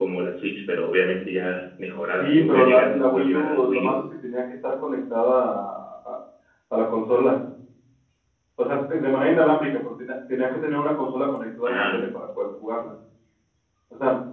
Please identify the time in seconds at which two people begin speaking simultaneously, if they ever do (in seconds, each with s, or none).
1.9 s